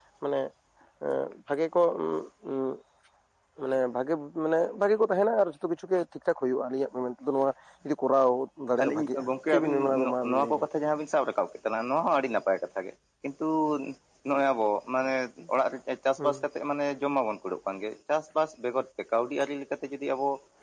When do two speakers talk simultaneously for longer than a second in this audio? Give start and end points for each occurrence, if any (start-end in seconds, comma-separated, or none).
8.8-10.6